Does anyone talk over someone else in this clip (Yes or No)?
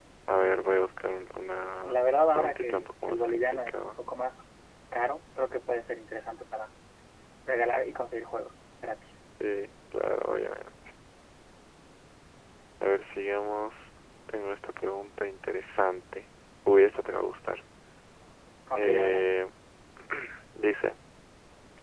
Yes